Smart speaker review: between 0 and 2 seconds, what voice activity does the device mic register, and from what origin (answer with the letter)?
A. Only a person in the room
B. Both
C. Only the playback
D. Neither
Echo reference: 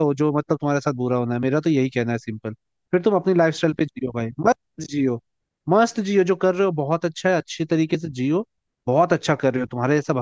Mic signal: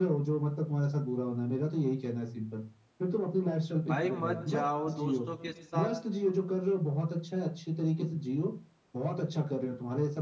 C